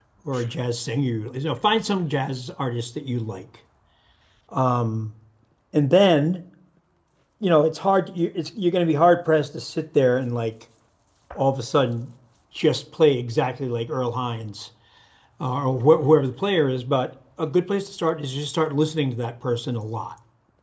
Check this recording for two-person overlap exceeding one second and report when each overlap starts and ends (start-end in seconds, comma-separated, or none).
none